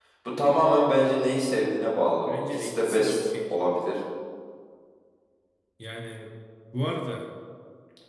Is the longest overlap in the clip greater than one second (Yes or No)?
Yes